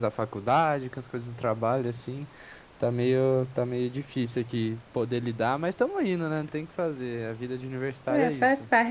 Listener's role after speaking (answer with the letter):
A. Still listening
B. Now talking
B